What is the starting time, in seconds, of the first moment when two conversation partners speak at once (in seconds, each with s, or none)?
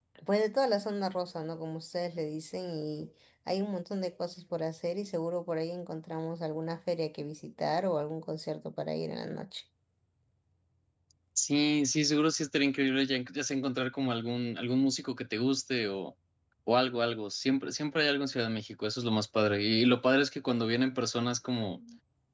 none